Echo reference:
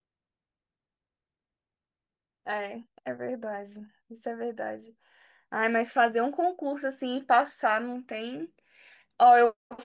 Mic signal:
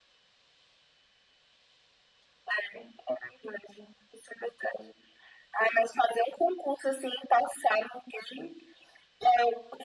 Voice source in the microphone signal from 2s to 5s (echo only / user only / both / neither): echo only